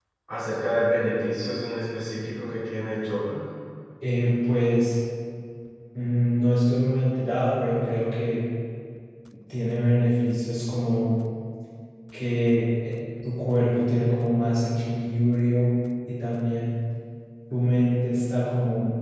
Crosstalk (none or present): none